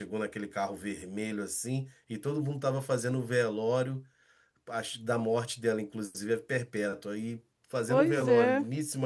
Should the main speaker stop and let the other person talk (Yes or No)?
No